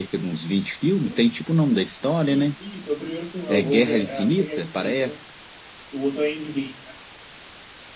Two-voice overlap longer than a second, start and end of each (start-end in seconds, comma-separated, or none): 3.5-5.1